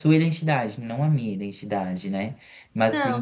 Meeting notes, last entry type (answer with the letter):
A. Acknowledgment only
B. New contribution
A